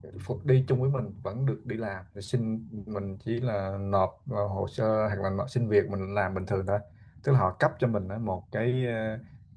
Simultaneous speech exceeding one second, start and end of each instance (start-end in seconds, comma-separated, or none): none